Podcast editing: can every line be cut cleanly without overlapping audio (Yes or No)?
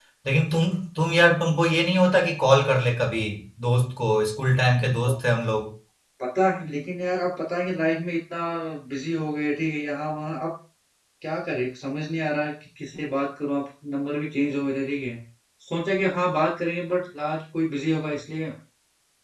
Yes